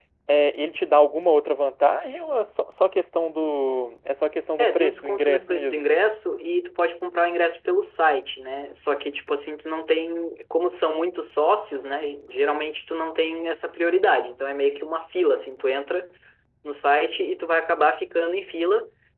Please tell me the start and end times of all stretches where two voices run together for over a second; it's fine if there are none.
4.6-5.8

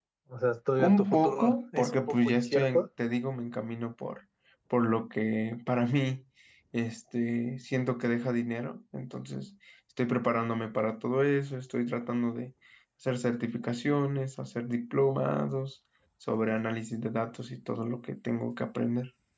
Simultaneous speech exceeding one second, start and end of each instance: 0.8-2.9

